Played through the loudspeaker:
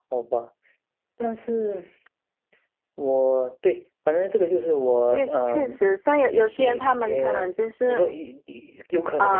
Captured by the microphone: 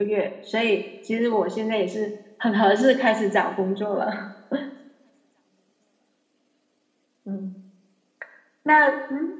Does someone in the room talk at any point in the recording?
Yes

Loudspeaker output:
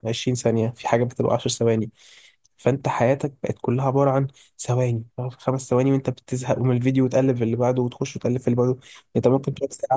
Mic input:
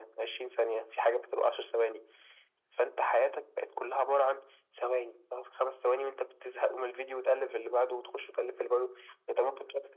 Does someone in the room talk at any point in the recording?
No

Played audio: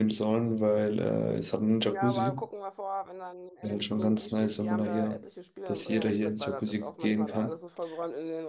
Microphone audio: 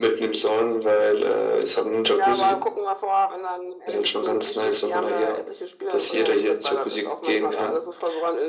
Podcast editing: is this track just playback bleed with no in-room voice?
Yes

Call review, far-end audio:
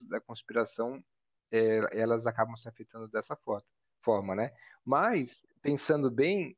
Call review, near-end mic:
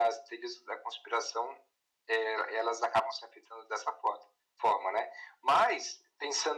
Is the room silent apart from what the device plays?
Yes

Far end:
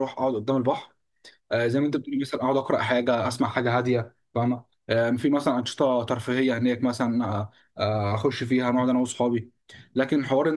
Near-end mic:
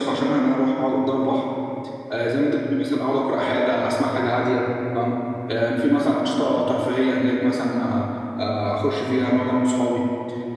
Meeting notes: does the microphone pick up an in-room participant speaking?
No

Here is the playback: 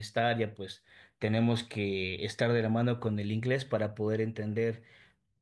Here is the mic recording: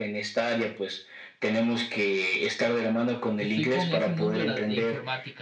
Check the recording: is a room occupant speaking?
Yes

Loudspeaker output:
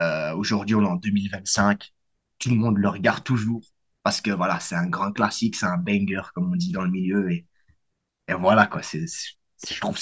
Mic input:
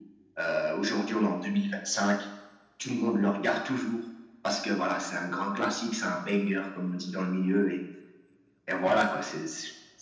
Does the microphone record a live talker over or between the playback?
No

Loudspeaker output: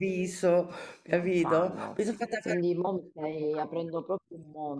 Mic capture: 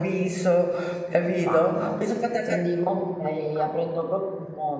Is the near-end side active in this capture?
No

